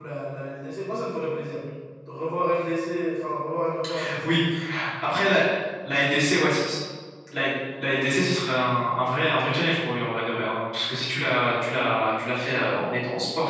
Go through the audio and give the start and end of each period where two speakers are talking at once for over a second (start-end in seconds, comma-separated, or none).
none